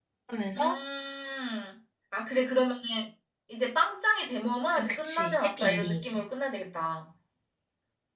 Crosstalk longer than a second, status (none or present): present